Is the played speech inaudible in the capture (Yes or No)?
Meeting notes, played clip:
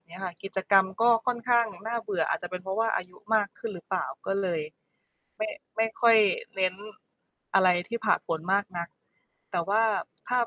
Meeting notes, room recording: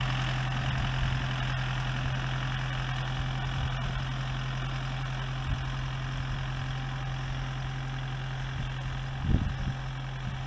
Yes